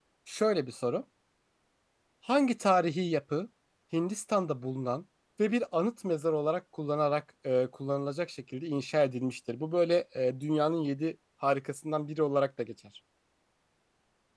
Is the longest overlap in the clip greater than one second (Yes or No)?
No